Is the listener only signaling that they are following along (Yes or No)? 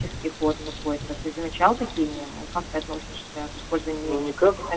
No